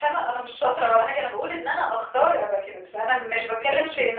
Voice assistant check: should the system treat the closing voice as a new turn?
No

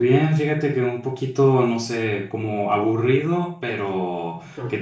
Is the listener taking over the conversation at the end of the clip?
No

